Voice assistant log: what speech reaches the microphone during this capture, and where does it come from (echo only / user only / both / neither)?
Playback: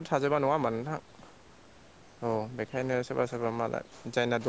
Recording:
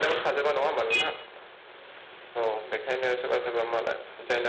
echo only